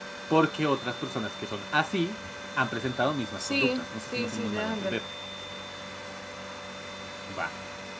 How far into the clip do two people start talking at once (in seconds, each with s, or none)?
3.4 s